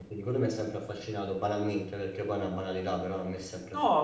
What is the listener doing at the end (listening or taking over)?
taking over